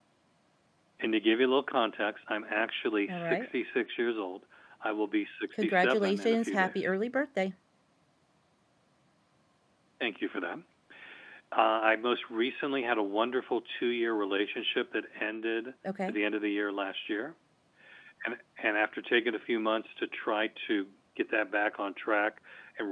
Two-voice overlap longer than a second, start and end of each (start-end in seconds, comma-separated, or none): 5.6-6.9